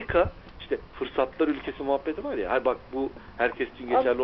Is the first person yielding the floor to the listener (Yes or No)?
Yes